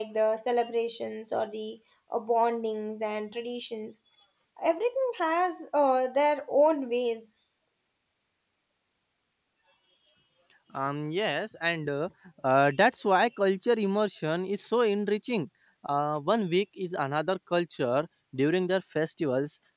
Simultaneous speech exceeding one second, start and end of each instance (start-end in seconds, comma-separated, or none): none